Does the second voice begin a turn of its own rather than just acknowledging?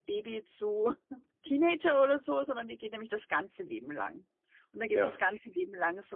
No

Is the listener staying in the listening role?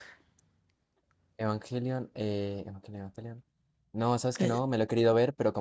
Yes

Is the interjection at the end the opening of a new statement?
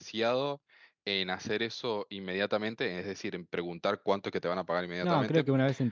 Yes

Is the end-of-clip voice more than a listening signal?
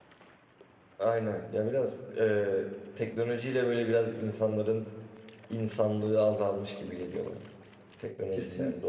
Yes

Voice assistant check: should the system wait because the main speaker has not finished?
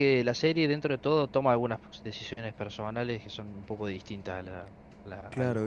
No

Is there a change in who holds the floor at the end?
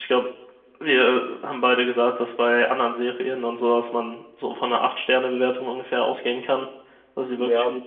Yes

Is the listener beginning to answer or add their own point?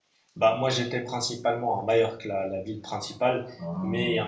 No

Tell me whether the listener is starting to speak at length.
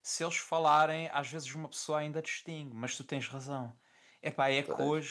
No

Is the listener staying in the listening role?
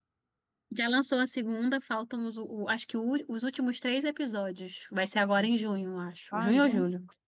No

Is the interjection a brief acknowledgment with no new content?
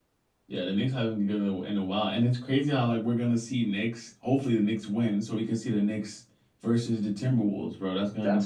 No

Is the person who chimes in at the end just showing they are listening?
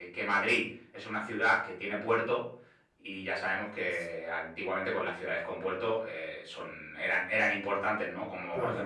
Yes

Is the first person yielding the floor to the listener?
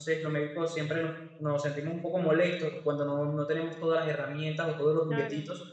No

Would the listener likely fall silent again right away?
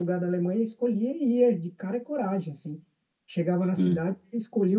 Yes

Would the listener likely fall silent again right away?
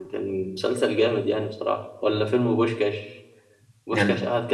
Yes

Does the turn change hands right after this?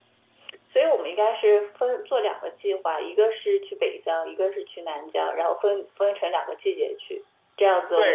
Yes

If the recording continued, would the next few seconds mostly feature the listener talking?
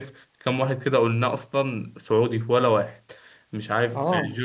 No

